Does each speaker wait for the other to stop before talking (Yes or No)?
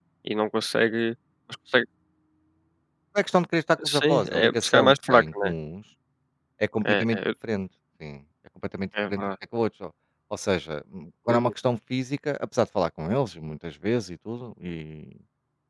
No